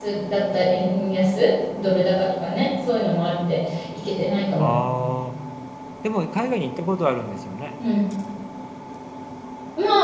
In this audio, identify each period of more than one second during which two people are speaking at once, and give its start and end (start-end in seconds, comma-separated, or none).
none